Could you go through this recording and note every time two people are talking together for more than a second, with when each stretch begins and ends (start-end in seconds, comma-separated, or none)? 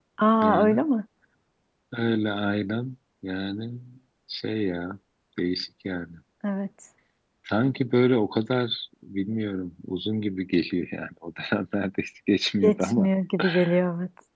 none